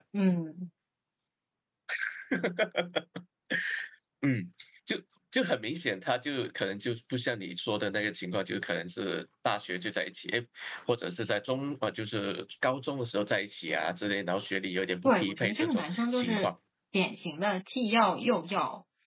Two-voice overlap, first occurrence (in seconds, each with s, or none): 15.0 s